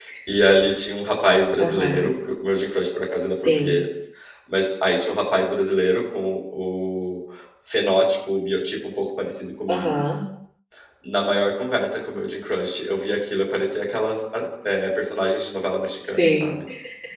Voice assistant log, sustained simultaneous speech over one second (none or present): none